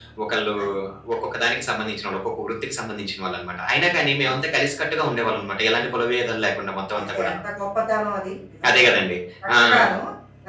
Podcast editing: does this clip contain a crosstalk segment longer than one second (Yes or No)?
No